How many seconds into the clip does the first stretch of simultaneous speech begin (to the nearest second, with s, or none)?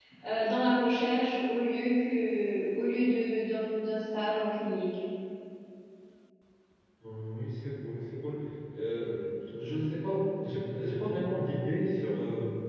none